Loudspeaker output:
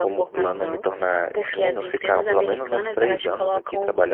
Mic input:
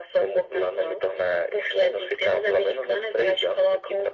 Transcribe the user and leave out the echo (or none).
none